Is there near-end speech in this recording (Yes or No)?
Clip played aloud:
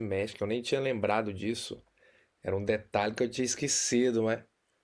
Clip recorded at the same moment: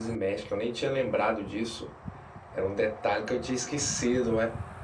No